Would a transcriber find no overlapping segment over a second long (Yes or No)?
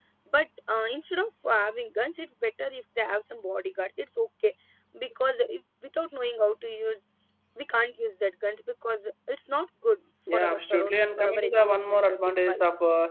No